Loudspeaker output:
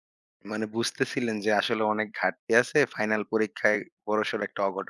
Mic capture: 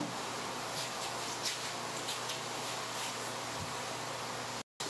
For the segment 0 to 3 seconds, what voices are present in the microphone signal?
neither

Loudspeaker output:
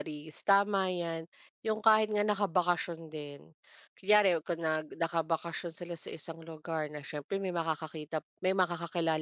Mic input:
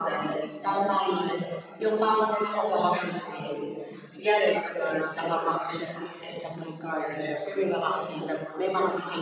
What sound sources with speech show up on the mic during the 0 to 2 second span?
echo only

